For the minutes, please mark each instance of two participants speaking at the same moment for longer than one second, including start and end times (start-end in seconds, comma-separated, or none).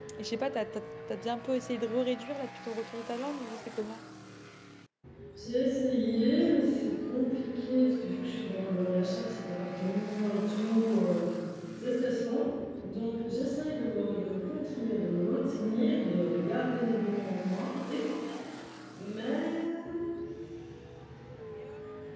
none